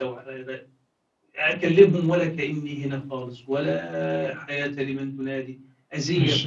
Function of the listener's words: taking over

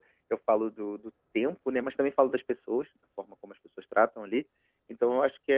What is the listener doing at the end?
listening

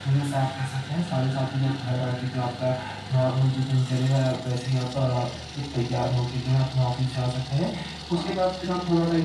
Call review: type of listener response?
listening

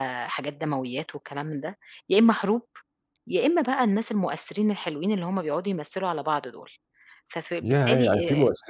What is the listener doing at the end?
taking over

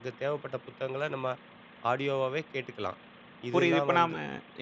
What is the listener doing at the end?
taking over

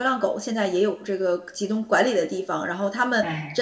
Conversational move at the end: listening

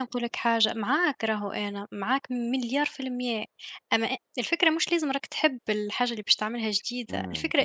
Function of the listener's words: listening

